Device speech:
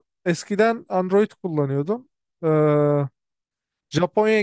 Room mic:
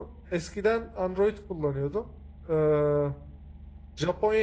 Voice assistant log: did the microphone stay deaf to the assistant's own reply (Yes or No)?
No